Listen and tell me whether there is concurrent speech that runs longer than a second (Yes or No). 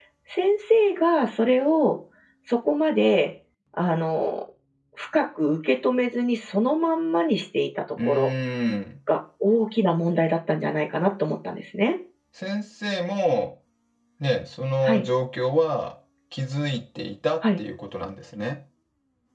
No